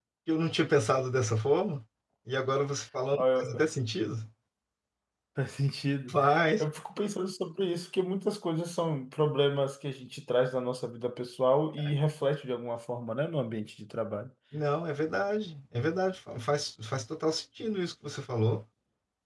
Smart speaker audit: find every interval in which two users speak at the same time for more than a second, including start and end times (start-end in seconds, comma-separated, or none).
none